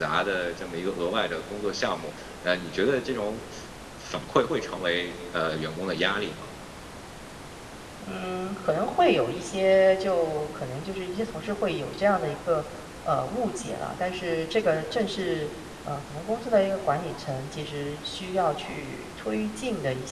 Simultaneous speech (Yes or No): No